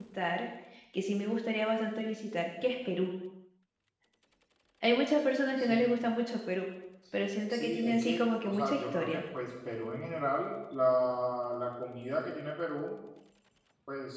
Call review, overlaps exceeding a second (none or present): present